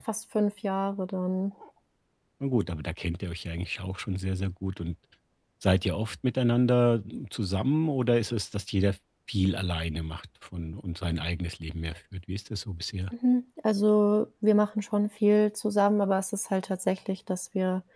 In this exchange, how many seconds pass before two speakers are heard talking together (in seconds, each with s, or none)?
none